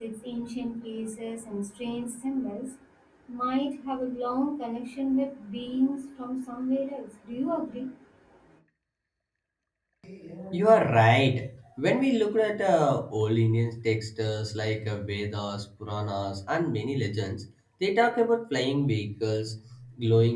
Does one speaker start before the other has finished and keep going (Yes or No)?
No